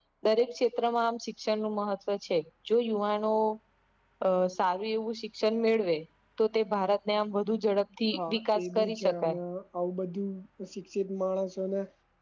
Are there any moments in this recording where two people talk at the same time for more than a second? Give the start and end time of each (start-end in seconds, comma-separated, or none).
8.1-9.4